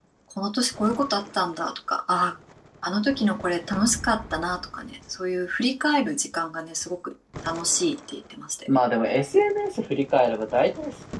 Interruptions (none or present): none